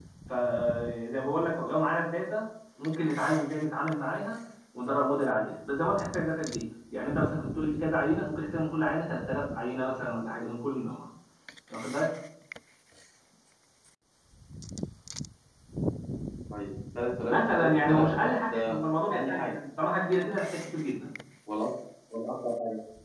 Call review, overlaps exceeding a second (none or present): present